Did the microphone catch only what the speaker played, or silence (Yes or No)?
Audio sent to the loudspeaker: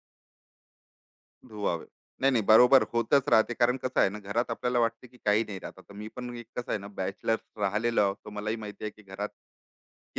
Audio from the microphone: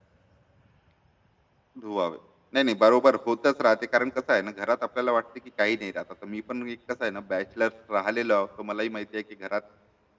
Yes